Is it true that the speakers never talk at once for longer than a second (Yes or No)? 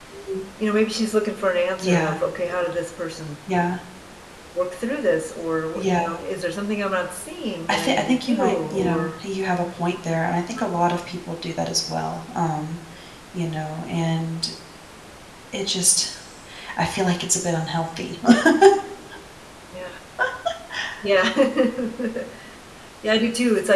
No